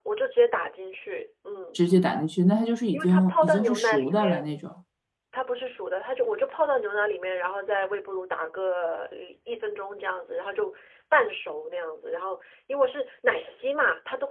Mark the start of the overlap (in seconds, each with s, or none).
2.9 s